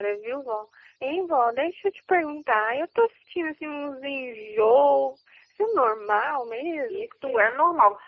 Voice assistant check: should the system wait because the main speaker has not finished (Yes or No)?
No